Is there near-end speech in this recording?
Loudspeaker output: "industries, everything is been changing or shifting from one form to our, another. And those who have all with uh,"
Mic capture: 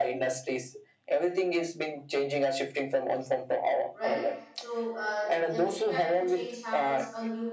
Yes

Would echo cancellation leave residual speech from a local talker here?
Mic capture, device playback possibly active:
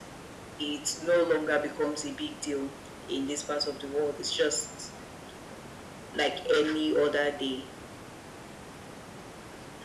No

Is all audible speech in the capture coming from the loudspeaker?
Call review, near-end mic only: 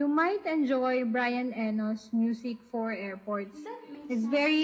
No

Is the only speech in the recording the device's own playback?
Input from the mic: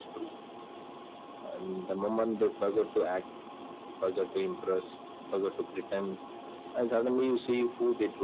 Yes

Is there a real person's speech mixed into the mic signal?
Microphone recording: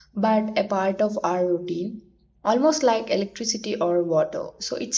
Yes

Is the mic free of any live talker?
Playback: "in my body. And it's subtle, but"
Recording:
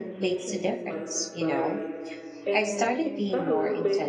No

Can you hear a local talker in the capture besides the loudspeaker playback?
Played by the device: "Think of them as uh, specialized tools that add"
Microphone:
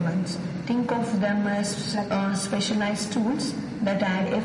Yes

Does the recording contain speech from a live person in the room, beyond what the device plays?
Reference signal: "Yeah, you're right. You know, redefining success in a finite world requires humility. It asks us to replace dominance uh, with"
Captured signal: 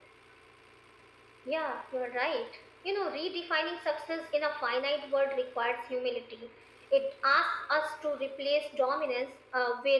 No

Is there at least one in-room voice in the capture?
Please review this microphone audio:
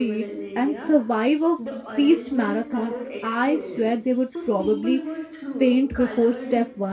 Yes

